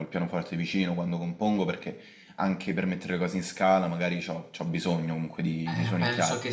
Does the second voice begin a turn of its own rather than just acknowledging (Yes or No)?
Yes